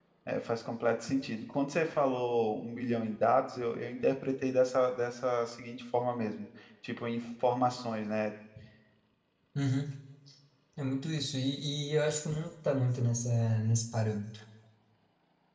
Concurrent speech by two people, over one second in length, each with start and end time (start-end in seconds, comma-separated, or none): none